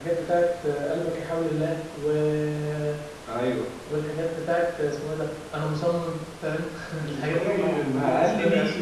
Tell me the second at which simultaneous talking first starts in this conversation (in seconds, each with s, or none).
7.0 s